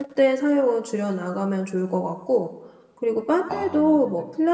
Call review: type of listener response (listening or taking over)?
listening